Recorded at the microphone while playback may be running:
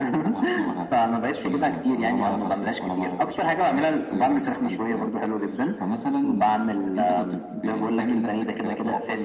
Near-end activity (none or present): none